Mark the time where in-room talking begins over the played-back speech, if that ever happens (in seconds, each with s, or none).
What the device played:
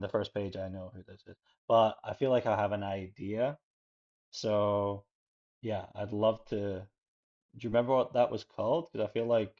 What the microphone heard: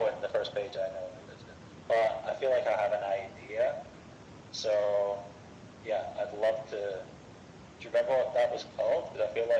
none